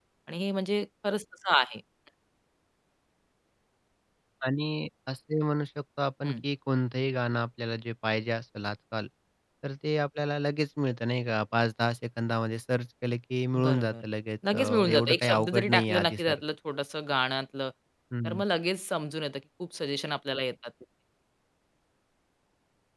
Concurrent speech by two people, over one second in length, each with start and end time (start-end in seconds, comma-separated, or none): 14.5-16.4